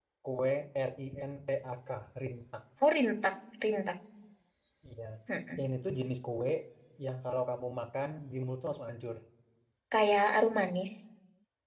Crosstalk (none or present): none